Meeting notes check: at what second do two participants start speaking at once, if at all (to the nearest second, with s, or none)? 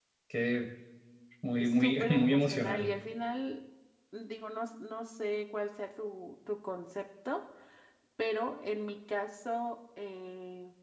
2 s